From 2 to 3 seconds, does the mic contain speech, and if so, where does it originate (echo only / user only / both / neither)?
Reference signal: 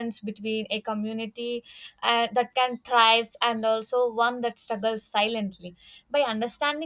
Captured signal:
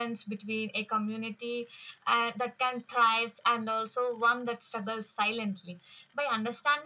echo only